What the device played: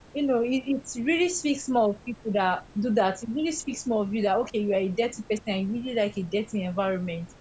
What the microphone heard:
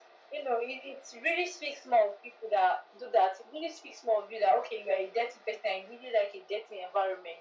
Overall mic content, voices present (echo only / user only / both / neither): echo only